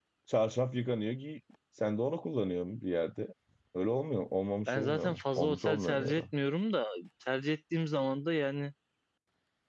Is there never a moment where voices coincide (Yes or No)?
No